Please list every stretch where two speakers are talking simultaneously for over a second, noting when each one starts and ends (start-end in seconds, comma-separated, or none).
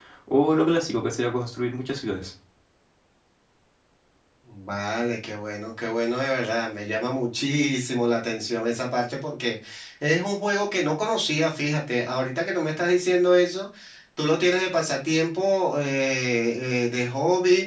none